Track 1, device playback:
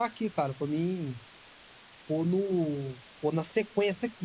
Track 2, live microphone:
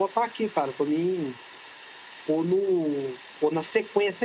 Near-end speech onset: none

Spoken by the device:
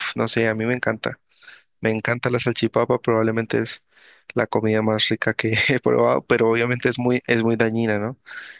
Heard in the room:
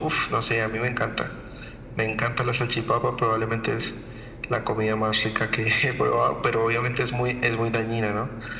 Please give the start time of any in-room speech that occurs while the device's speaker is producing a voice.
none

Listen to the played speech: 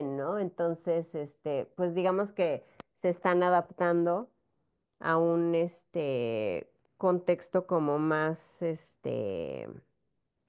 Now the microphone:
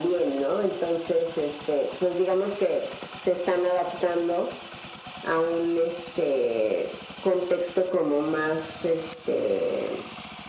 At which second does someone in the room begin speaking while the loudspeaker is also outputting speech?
none

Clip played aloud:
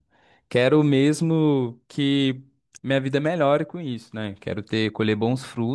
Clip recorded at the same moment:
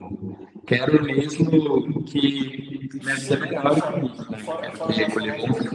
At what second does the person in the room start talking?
3.0 s

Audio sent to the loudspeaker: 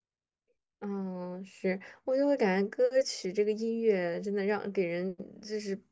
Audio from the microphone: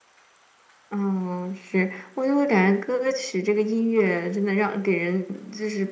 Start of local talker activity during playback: none

